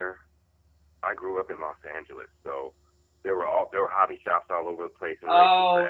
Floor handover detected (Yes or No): Yes